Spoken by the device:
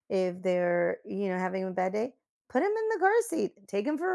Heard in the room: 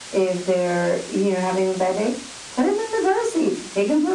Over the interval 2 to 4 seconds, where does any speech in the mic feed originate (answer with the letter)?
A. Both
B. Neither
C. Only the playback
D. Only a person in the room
C